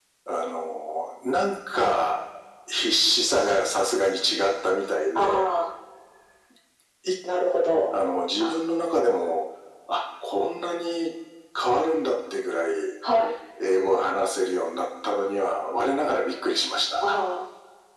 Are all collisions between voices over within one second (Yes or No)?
Yes